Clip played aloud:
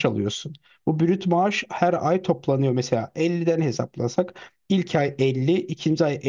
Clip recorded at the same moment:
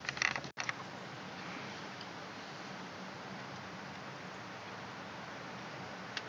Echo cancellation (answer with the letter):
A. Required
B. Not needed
B